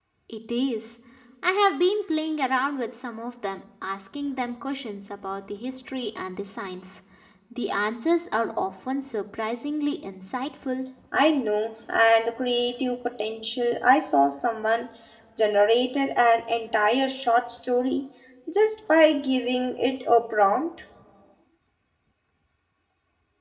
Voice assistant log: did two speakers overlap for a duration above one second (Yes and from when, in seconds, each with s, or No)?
No